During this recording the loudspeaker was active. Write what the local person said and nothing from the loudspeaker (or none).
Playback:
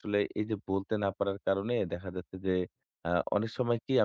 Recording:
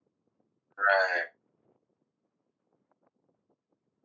রাইট,